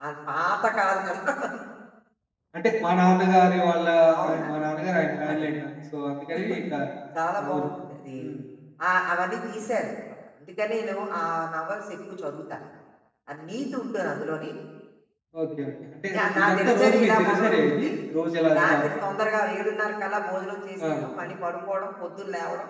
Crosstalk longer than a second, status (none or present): present